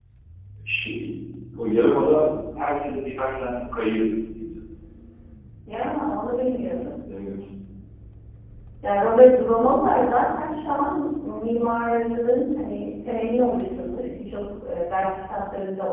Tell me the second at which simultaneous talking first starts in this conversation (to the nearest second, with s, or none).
none